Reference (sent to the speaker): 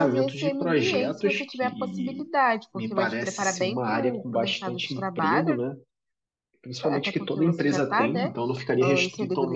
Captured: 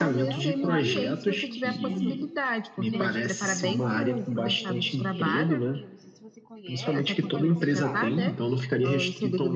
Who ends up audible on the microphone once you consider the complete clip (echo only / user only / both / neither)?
both